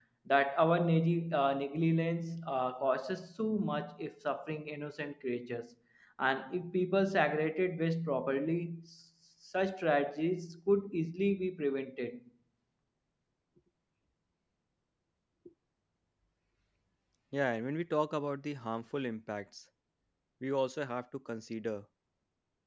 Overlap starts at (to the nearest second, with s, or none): none